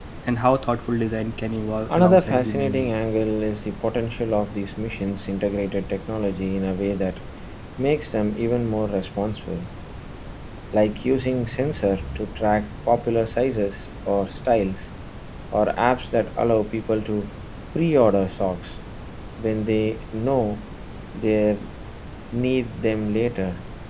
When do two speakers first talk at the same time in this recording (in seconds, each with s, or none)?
1.9 s